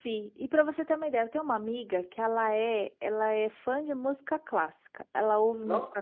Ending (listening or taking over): listening